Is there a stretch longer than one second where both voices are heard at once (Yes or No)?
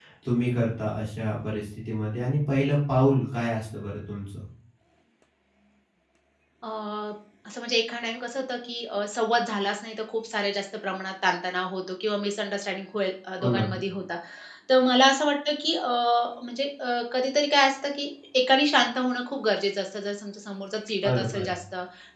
No